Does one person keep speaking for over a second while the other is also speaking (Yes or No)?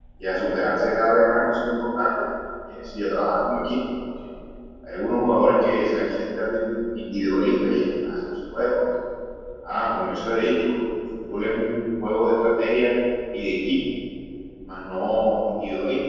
No